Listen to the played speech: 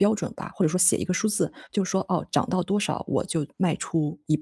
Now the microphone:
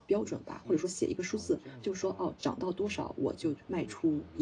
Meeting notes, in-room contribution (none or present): present